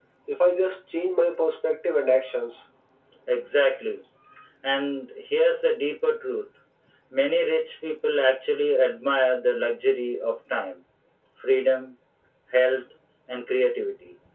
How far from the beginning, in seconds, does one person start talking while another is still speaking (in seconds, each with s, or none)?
none